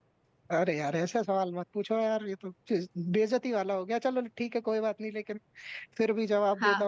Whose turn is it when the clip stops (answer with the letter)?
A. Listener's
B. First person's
A